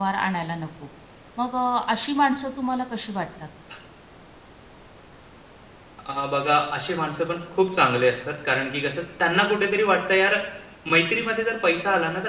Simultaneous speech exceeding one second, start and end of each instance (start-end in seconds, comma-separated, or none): none